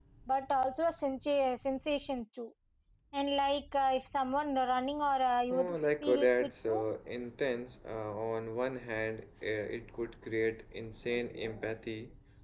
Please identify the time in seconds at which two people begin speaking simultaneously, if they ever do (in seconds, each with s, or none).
5.5 s